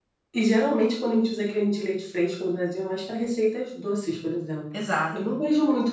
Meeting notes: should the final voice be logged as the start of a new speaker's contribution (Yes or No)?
No